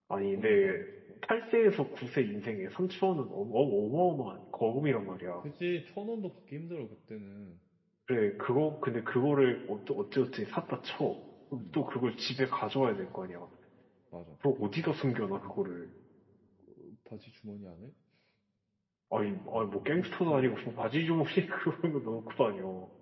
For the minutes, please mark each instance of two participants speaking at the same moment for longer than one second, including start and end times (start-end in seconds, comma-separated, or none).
19.2-20.6